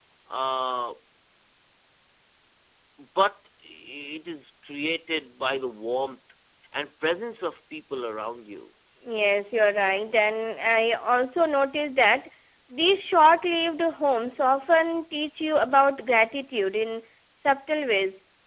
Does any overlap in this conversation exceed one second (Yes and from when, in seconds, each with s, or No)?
No